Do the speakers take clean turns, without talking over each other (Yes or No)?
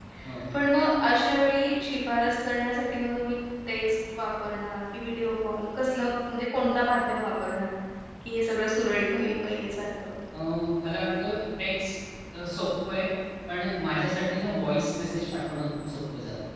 Yes